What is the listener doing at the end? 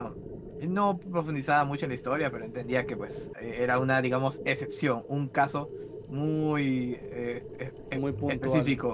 listening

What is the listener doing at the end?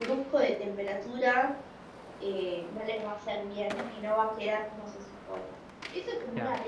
listening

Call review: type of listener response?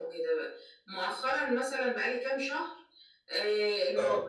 listening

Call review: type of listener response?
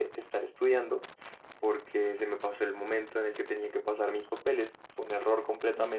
listening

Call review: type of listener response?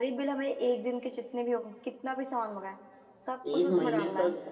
taking over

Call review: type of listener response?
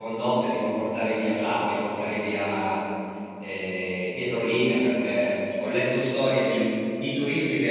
listening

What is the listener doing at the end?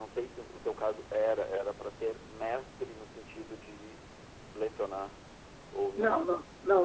taking over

